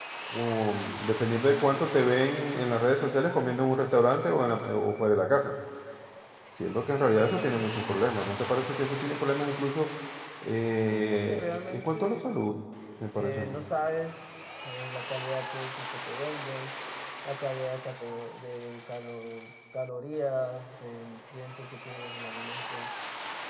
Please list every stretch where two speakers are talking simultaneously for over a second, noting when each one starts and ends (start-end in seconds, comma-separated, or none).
10.9-12.2